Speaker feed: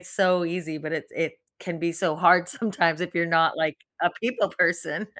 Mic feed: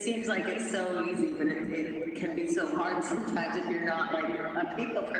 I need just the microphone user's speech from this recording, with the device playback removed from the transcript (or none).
none